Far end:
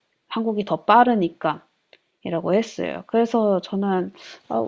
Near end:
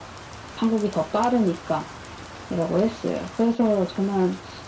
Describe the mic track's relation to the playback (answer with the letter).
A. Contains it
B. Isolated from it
A